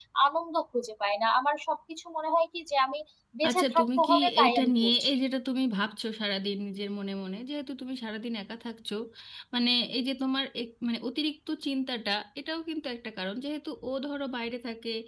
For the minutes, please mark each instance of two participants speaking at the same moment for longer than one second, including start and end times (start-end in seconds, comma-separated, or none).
3.5-5.1